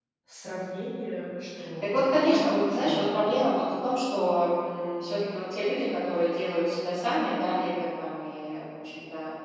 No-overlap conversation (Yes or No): No